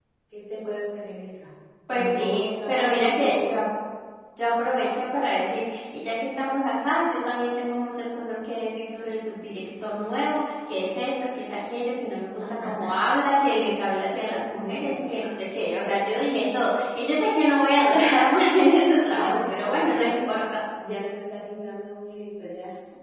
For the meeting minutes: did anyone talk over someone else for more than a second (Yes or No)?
Yes